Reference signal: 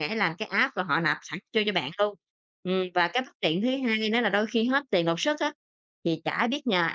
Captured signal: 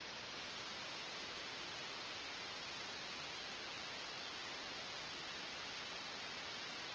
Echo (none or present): none